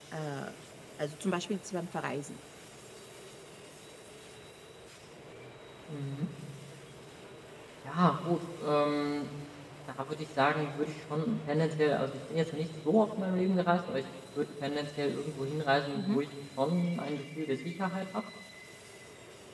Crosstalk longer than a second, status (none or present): none